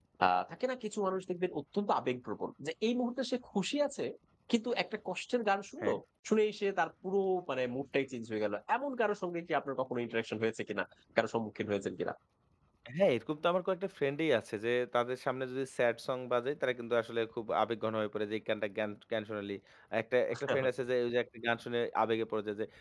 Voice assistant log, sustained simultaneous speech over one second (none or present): none